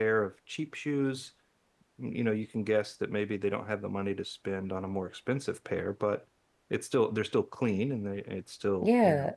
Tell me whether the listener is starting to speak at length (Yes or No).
Yes